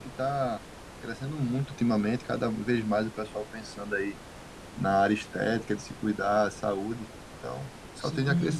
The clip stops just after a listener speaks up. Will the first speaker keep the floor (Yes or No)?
No